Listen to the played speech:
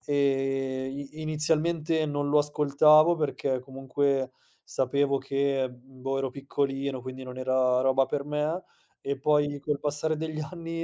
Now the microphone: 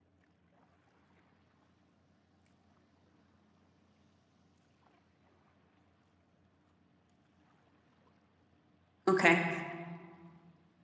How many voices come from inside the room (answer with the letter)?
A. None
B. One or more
B